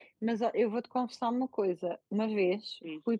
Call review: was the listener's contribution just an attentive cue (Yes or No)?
Yes